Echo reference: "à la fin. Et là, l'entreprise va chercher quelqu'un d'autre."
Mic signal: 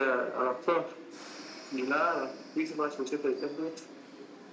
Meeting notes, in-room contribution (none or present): none